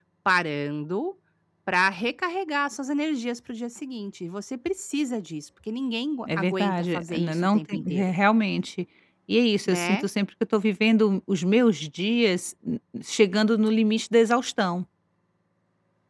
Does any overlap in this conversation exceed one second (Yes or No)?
Yes